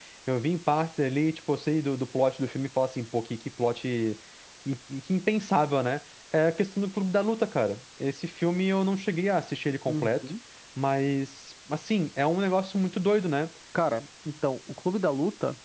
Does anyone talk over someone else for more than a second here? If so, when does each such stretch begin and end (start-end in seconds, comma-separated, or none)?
none